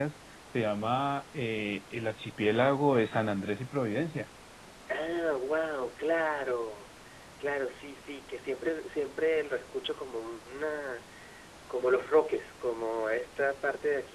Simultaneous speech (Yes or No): No